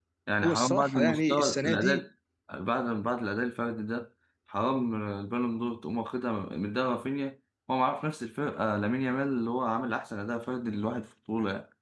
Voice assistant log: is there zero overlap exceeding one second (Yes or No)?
No